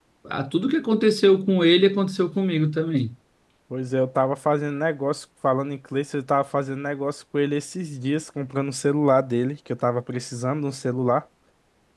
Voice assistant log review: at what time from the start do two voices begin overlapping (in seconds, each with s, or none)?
none